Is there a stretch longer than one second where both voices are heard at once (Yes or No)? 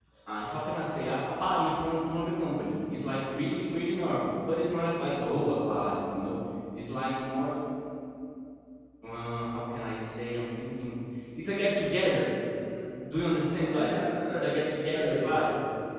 Yes